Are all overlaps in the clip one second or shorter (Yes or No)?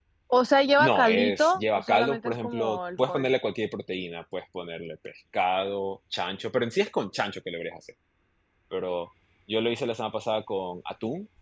No